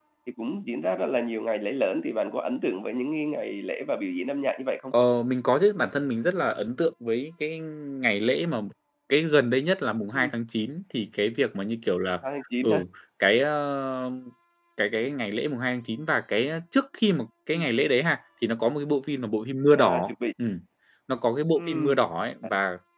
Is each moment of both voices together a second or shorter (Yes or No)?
Yes